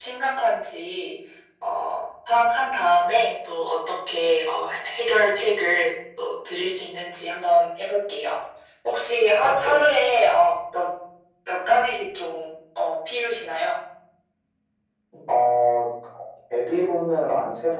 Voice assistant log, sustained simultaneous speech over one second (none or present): none